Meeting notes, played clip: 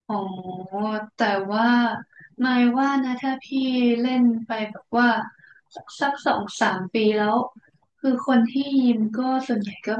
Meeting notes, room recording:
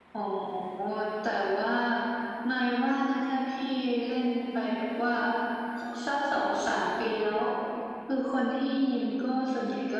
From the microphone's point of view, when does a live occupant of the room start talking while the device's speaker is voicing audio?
none

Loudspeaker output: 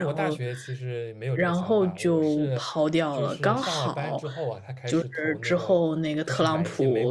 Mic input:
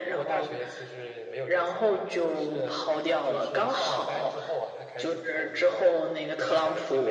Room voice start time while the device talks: none

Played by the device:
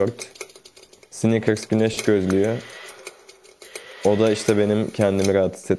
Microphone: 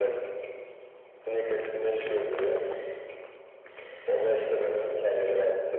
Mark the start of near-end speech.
none

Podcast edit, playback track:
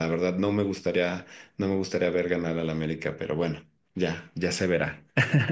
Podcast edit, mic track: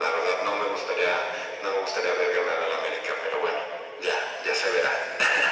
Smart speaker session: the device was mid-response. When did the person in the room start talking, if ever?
none

